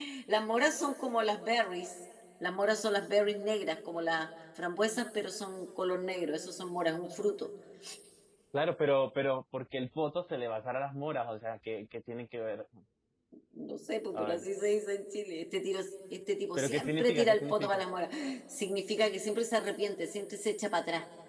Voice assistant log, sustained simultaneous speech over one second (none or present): present